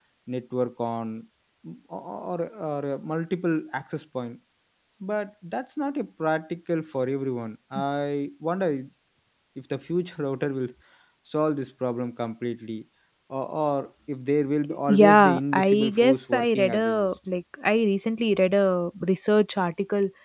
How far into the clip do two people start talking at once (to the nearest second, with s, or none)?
15 s